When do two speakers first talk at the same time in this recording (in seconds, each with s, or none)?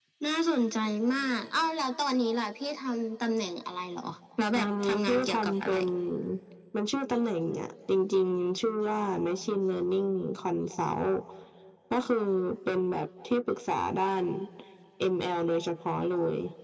4.5 s